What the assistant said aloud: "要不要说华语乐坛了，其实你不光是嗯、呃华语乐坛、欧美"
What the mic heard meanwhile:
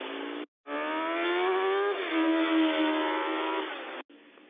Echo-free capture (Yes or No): Yes